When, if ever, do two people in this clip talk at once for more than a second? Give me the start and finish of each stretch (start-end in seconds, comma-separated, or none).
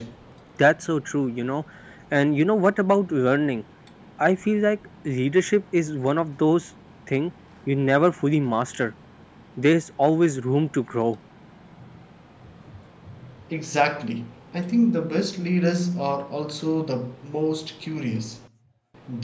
none